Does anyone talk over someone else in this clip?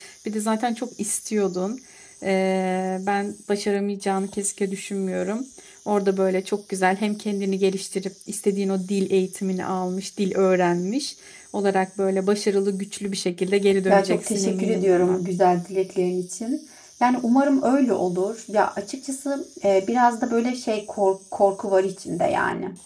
Yes, from 13.9 s

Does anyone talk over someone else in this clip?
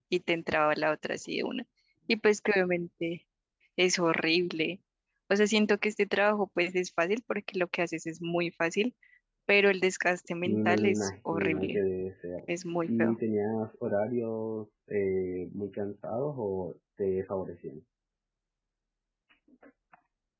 Yes, from 10.4 s

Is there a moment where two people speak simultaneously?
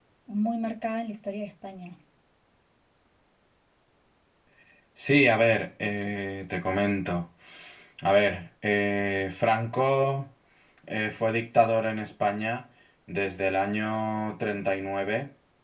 No

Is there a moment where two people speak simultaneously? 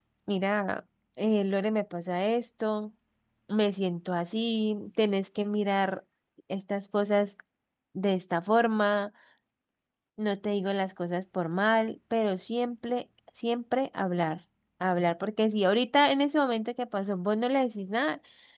No

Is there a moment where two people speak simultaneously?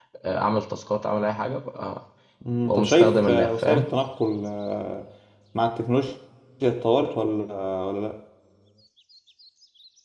Yes, from 2.6 s

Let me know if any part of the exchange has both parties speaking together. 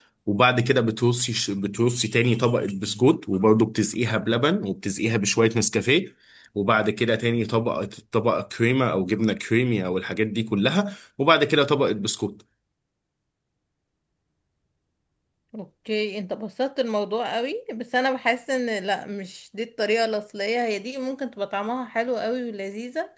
No

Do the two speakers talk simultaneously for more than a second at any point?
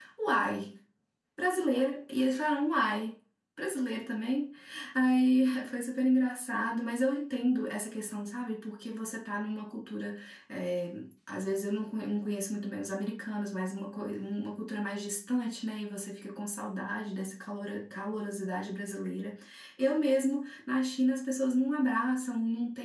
No

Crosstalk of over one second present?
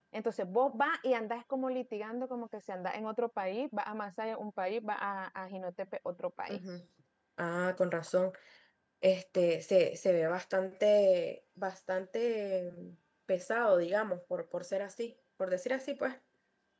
No

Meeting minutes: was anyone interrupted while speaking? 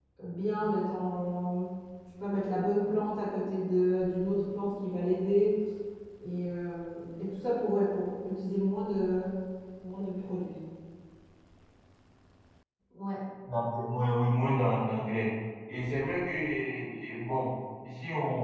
No

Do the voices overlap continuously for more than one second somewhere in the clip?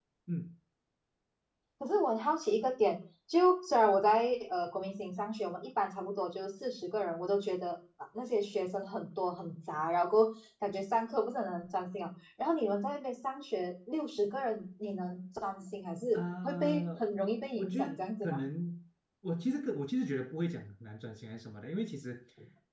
Yes, from 16.1 s

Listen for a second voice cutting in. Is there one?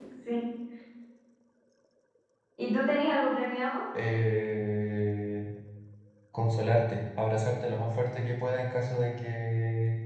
No

